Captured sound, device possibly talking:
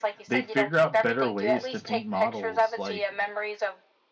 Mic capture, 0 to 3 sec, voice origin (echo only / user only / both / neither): both